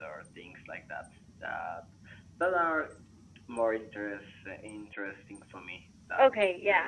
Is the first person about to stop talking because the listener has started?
Yes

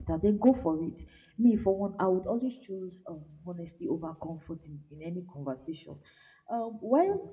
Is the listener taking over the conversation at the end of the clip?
No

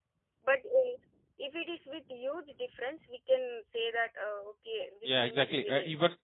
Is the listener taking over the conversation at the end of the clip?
Yes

